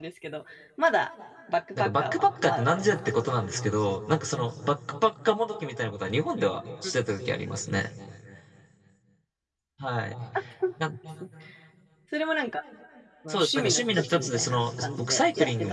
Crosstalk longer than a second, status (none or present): present